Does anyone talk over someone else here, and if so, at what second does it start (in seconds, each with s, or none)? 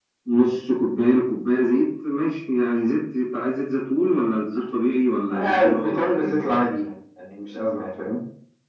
5.3 s